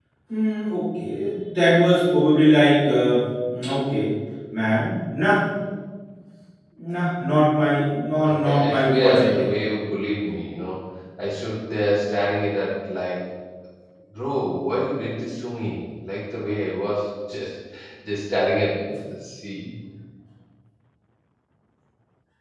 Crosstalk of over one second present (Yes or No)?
Yes